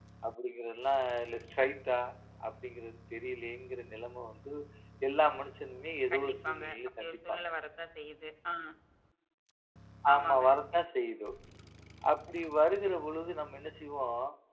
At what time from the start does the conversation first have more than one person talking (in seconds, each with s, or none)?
6.1 s